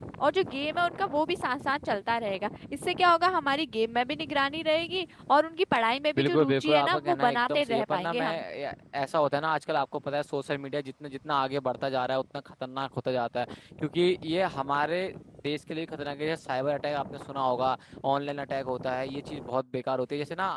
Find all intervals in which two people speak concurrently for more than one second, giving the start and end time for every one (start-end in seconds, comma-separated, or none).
6.2-8.4